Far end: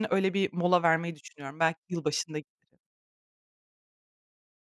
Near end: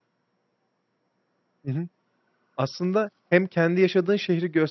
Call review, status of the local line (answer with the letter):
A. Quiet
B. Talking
B